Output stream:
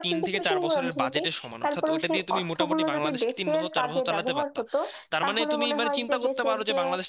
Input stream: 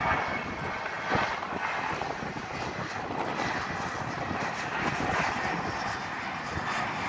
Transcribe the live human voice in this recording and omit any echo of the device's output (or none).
none